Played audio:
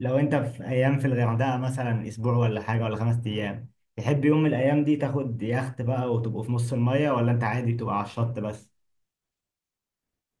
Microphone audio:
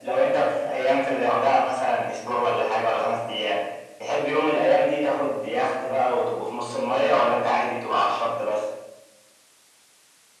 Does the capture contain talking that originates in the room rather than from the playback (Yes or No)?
No